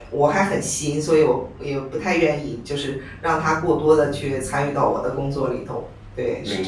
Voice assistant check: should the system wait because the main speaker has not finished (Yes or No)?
No